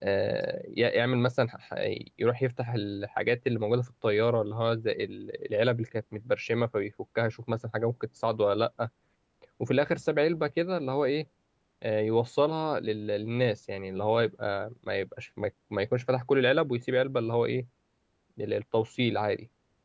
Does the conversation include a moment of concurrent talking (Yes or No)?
No